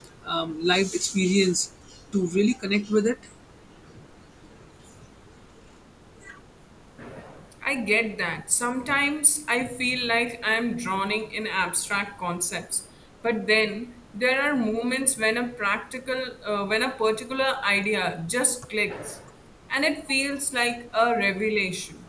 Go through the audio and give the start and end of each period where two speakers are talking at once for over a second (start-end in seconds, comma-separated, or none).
none